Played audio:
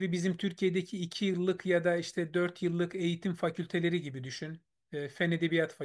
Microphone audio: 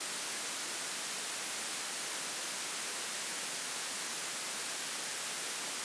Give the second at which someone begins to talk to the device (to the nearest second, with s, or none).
none